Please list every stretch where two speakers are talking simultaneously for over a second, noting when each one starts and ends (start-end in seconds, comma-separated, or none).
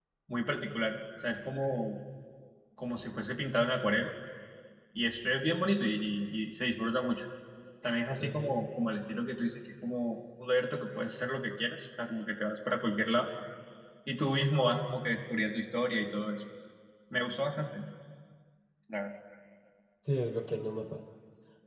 none